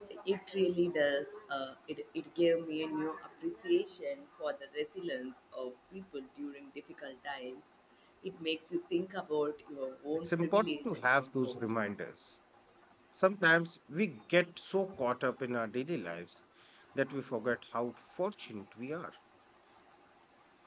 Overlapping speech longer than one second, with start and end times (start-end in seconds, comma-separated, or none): 10.2-11.6